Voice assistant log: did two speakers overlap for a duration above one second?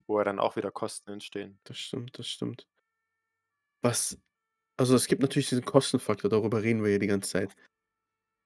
No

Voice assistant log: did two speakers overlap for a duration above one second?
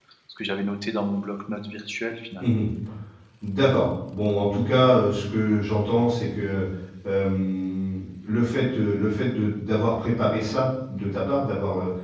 No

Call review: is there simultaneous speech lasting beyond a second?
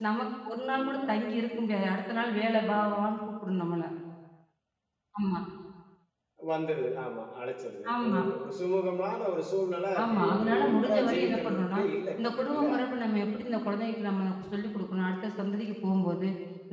Yes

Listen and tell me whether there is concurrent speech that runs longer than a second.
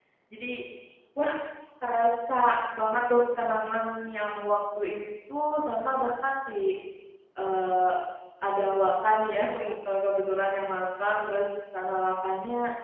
No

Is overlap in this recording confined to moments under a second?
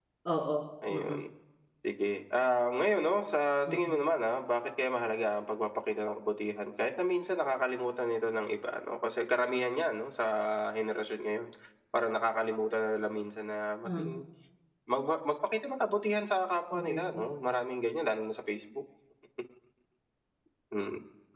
Yes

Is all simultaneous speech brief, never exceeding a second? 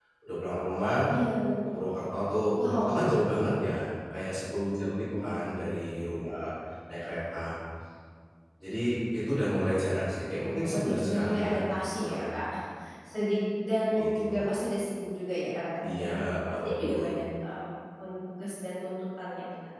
No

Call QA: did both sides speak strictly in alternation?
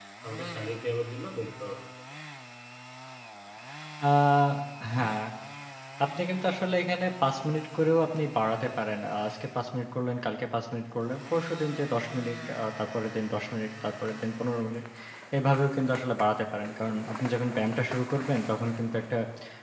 Yes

